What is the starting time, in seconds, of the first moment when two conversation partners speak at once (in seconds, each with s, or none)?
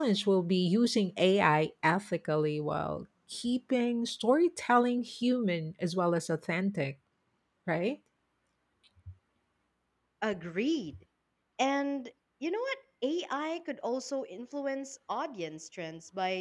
none